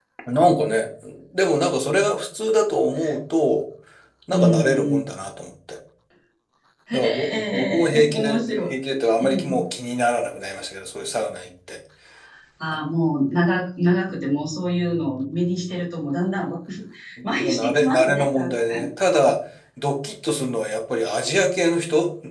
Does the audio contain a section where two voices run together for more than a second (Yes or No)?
Yes